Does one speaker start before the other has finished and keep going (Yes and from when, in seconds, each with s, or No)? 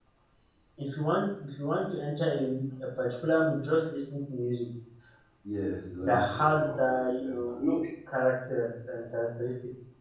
Yes, from 6.0 s